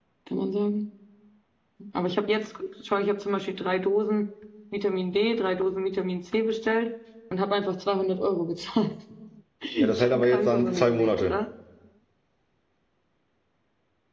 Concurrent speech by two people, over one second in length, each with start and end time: 10.0-11.3

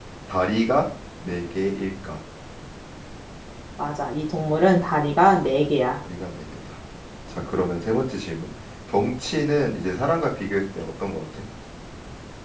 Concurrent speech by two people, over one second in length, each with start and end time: none

